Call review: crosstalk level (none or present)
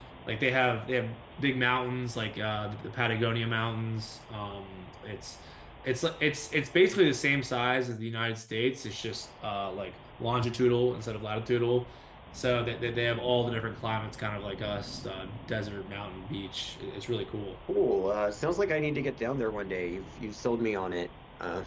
none